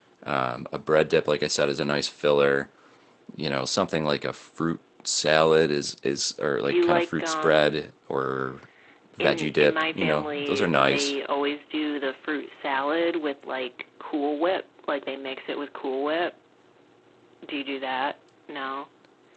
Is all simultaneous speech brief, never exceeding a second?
No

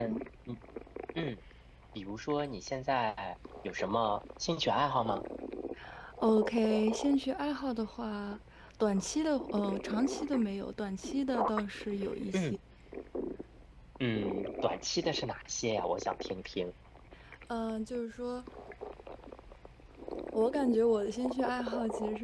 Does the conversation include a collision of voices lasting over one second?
No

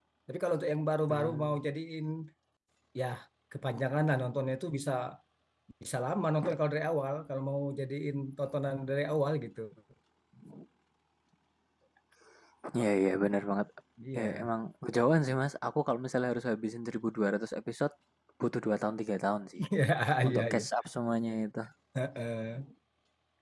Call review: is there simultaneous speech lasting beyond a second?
No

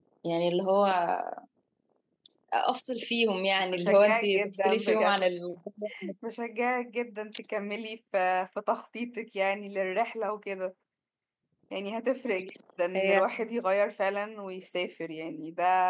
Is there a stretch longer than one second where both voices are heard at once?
Yes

